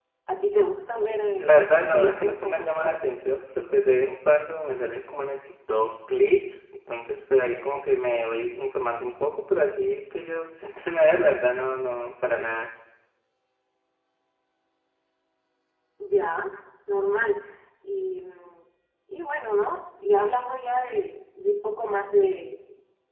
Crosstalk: present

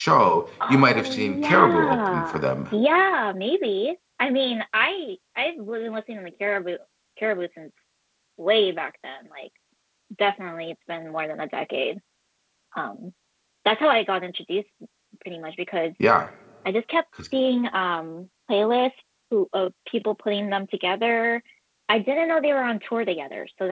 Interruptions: present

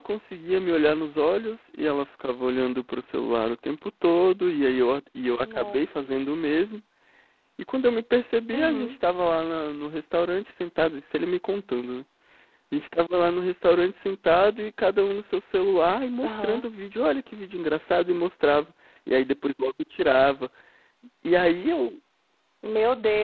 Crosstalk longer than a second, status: none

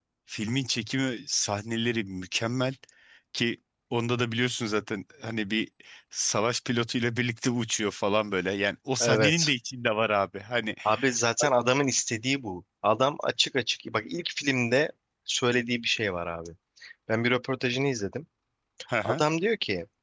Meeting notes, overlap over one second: none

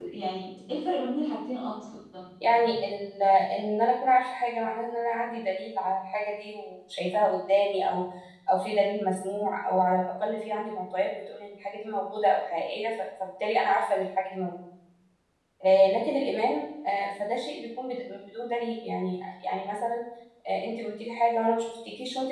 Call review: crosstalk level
none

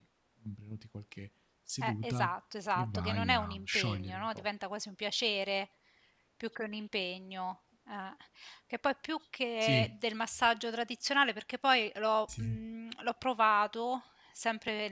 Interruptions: present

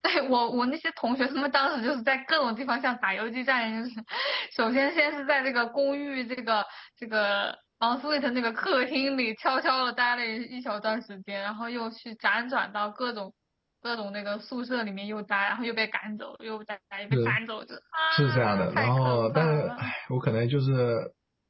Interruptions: present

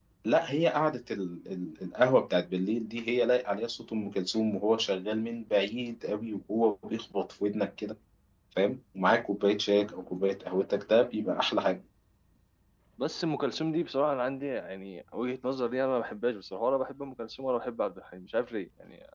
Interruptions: none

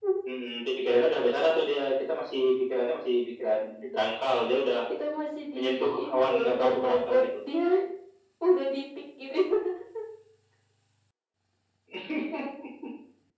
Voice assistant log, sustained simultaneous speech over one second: present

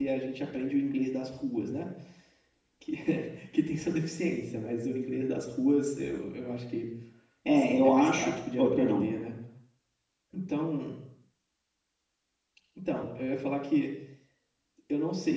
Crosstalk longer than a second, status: present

